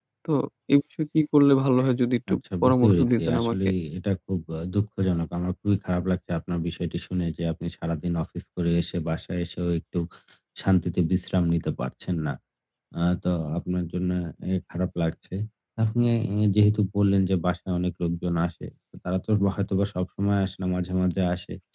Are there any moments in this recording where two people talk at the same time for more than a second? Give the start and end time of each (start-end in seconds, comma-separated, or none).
2.3-3.6